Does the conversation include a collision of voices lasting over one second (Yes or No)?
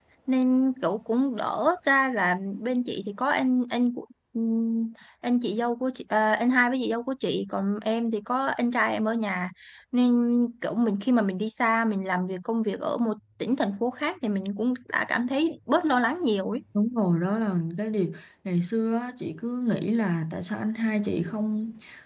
No